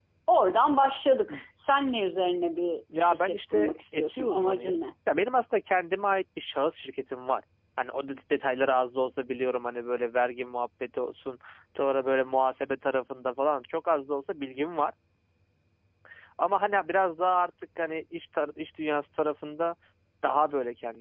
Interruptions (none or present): present